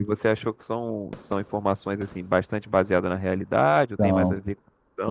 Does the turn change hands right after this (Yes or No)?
Yes